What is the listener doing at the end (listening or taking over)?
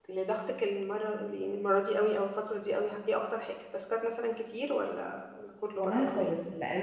taking over